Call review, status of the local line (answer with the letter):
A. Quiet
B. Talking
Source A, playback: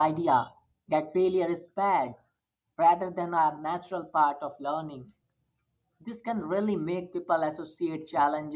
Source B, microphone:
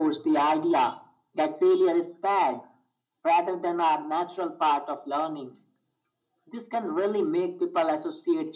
A